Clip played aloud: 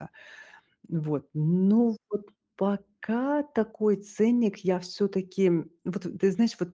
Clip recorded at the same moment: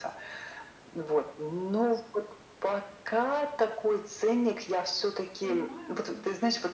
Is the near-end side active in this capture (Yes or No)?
Yes